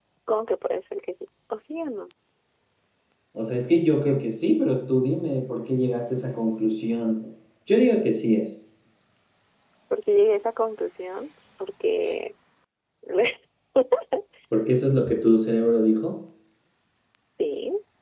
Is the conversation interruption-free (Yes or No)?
Yes